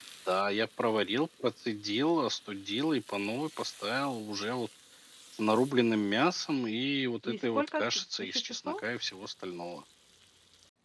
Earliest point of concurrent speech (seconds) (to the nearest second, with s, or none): 7 s